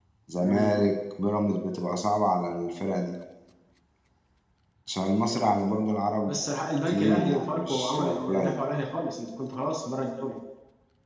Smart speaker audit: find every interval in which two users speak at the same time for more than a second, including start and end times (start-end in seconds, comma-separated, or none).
6.9-8.5